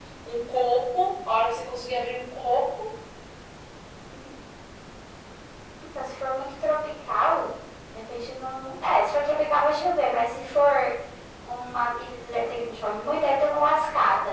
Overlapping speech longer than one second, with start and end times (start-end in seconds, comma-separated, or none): none